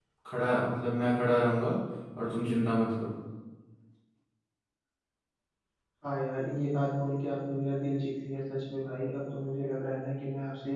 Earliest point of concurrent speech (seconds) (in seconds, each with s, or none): none